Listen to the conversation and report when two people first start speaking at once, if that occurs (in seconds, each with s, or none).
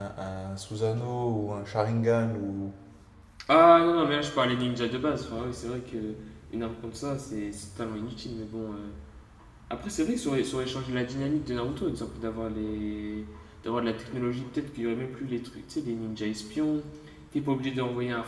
none